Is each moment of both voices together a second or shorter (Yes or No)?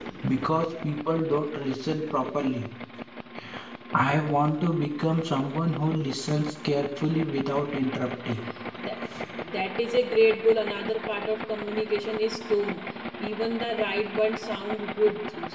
Yes